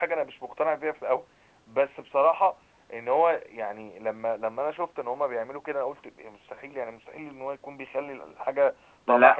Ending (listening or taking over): listening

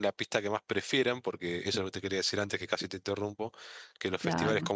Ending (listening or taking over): listening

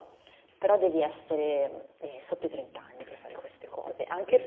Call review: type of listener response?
listening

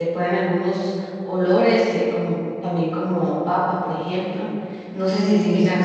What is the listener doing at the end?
taking over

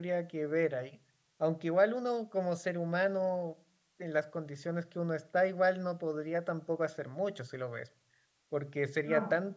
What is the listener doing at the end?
listening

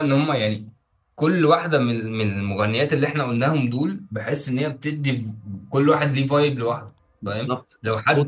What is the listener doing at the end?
taking over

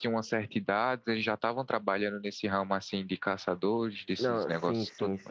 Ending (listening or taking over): taking over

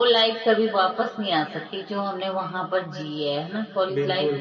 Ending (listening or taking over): taking over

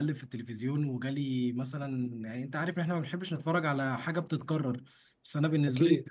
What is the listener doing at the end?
listening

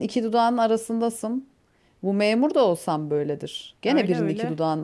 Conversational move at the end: listening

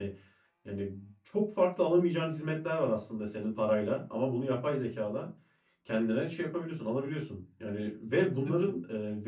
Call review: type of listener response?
listening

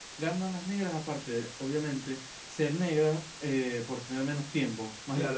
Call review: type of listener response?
taking over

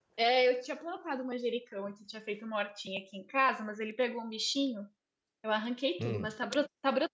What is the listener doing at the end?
listening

